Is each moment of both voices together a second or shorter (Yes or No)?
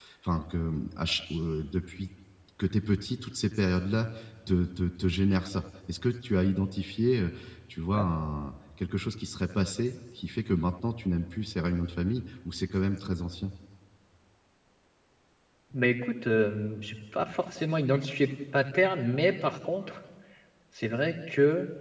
Yes